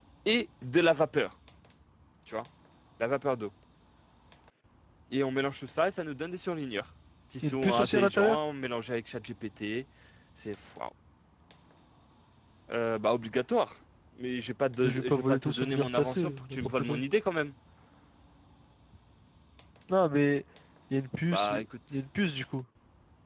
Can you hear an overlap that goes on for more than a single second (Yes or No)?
Yes